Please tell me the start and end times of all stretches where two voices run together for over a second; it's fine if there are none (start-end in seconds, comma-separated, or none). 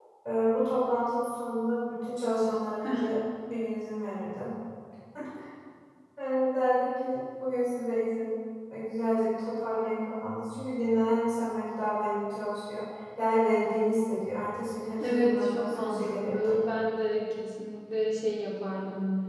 15.0-16.6